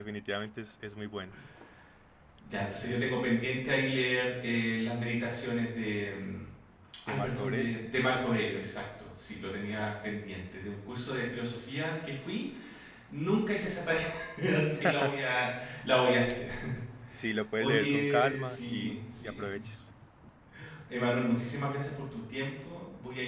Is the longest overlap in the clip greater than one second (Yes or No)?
Yes